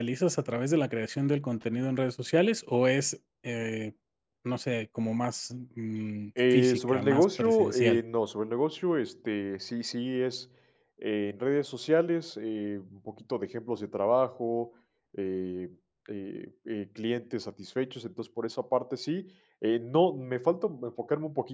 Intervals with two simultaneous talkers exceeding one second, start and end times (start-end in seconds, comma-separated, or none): 6.5-8.0